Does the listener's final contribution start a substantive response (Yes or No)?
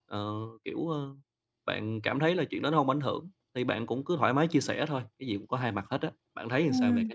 Yes